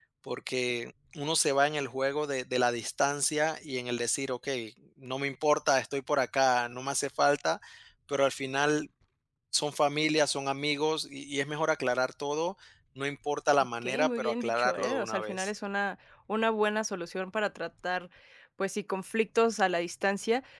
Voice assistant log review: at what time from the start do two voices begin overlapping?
13.8 s

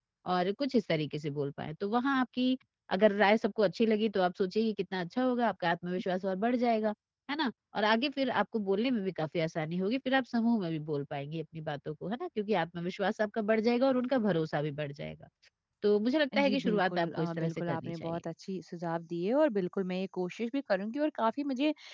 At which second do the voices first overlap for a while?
16.4 s

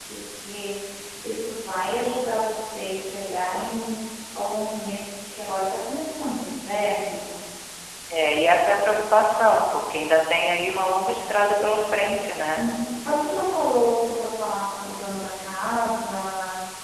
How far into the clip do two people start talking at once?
none

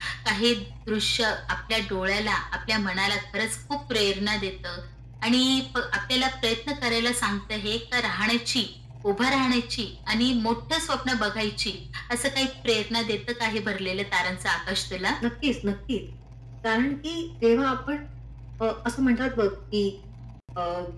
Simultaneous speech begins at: none

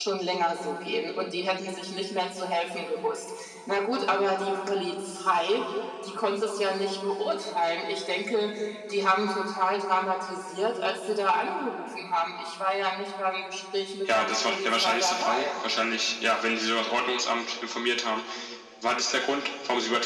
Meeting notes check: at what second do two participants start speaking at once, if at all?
14.1 s

